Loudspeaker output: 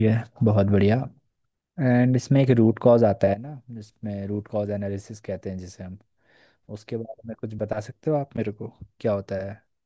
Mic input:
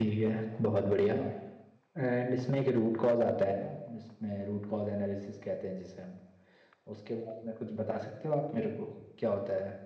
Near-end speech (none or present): none